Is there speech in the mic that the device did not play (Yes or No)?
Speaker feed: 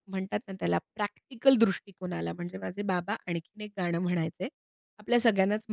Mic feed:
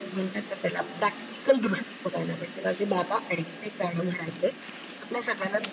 No